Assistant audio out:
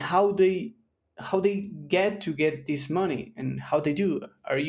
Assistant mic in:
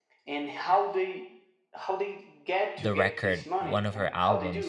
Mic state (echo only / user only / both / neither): both